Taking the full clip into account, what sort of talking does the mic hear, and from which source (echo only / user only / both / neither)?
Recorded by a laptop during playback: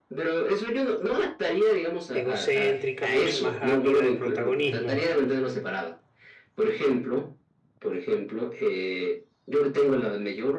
both